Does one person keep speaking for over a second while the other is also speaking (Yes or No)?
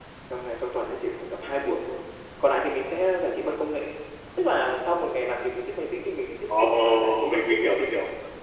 Yes